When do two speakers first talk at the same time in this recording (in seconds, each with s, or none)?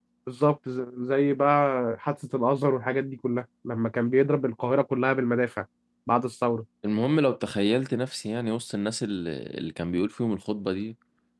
none